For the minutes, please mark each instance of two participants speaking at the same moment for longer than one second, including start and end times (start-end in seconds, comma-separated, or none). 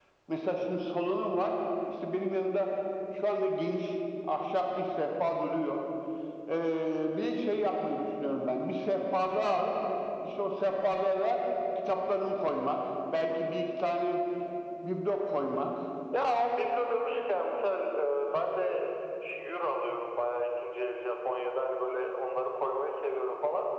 none